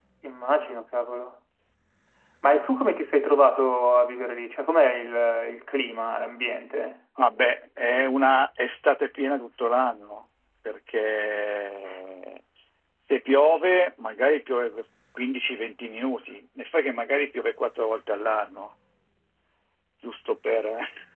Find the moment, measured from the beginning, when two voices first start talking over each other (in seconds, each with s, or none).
none